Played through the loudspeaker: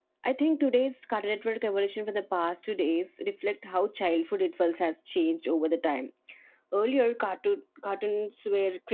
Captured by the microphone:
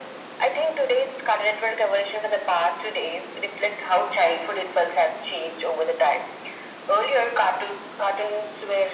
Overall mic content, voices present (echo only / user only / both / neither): echo only